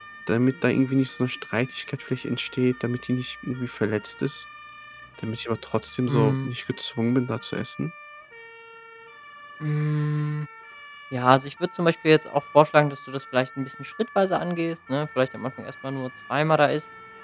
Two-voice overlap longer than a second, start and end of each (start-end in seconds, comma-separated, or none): none